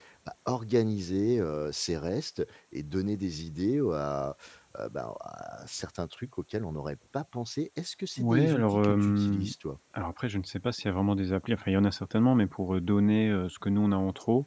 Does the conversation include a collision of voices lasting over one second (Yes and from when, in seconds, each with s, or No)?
Yes, from 8.2 s